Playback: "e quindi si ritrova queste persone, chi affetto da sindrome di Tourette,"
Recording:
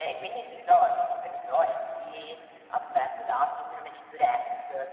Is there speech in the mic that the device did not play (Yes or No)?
No